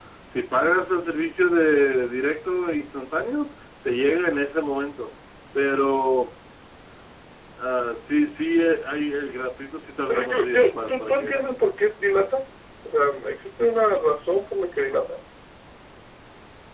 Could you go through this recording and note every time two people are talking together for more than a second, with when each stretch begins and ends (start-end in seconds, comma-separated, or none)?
10.1-11.4